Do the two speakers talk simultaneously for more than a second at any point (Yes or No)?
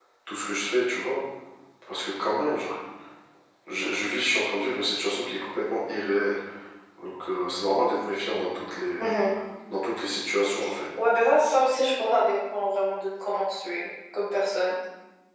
No